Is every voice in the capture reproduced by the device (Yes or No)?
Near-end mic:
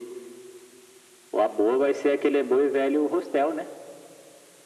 Yes